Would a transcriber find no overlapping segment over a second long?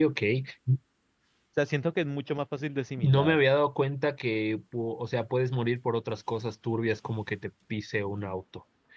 Yes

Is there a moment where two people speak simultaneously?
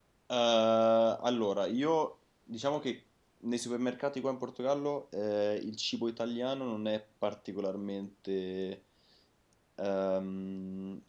No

